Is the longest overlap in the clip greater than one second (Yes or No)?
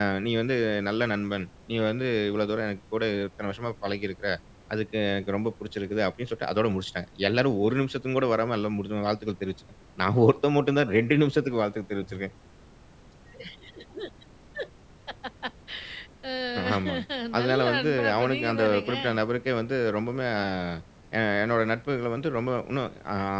Yes